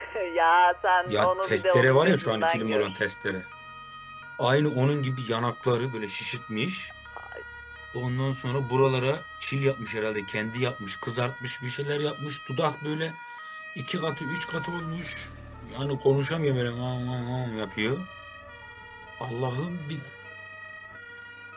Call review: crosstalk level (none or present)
present